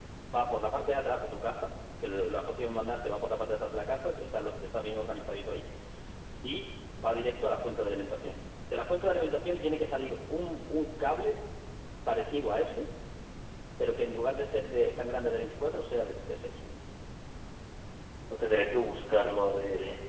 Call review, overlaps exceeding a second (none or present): none